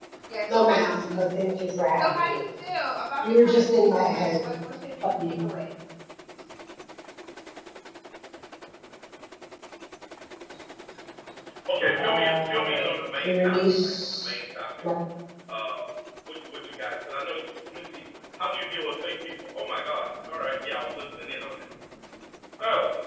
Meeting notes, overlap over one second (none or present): present